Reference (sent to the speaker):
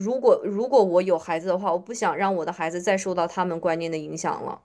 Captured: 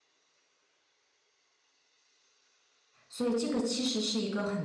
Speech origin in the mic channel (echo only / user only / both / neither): user only